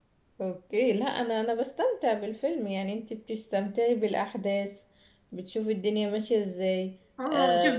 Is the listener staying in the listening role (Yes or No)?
No